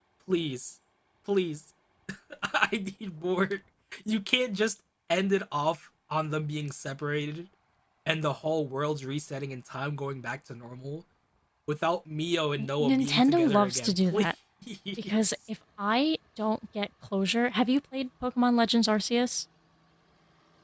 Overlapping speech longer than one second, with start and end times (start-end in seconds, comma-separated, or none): 12.8-14.3